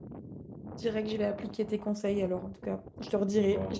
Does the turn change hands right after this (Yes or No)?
No